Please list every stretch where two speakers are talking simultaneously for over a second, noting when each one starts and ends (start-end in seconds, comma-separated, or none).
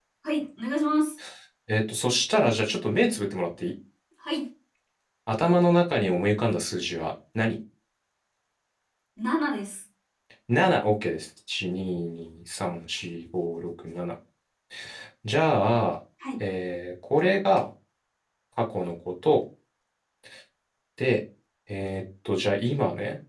none